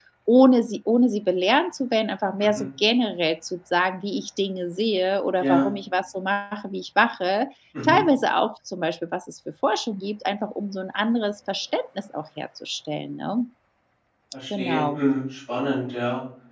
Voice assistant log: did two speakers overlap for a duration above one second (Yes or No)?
No